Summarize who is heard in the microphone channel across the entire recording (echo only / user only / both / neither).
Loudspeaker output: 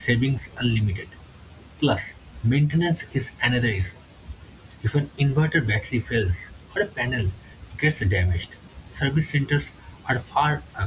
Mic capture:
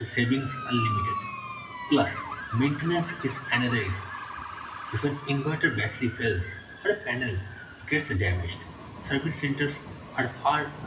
echo only